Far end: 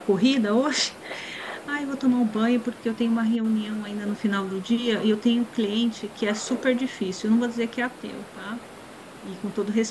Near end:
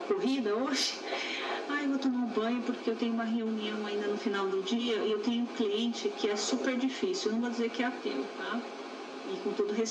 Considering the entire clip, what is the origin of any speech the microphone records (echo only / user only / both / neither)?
echo only